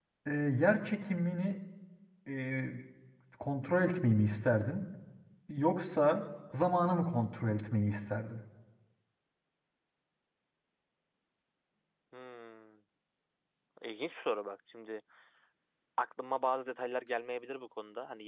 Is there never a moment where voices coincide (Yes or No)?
Yes